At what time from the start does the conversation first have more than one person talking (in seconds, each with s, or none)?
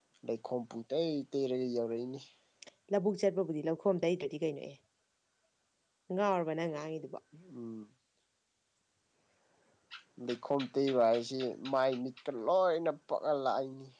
none